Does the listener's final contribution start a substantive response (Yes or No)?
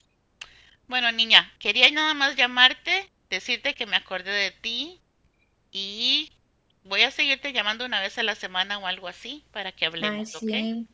Yes